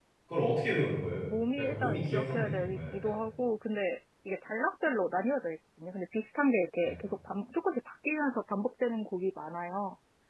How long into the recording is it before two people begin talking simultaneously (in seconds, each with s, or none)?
1.6 s